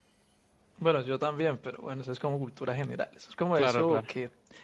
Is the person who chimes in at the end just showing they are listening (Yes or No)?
Yes